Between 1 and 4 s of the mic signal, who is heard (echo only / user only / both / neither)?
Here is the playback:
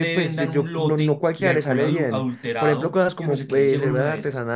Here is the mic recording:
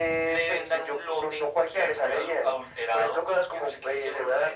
echo only